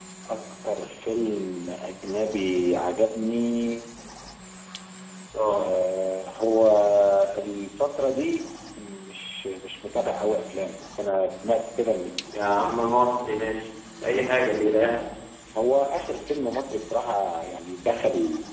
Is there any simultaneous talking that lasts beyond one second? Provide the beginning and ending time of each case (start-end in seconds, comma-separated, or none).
none